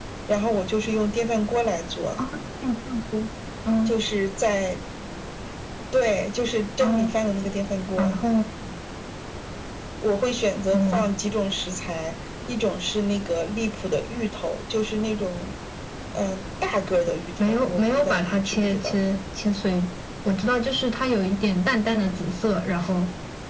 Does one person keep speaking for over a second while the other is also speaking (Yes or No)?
Yes